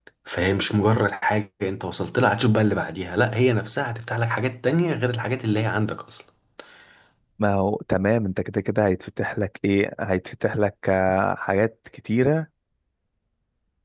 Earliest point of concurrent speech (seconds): none

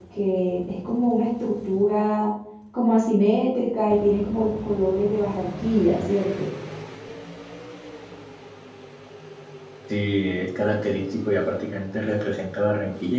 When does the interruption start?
none

